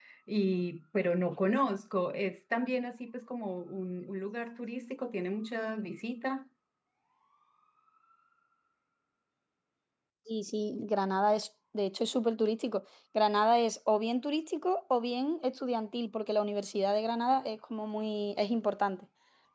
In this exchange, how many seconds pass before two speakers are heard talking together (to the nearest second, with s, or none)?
none